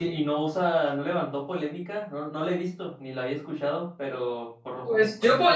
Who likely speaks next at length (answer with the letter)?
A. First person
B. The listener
B